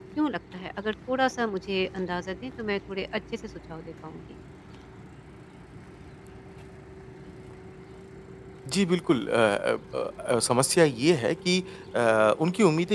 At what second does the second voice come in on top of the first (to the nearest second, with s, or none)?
none